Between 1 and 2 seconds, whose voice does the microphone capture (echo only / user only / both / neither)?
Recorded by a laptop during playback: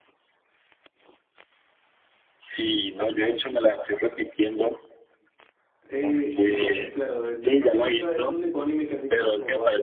neither